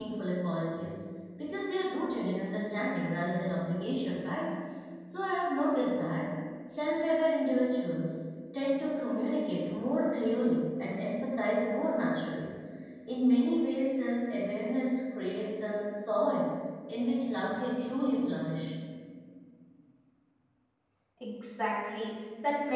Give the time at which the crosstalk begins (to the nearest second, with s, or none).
none